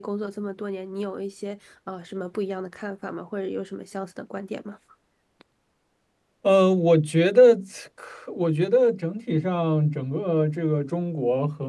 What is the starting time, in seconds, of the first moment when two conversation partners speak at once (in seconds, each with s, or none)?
none